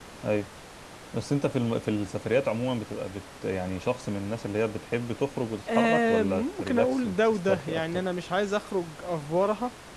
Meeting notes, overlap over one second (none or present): present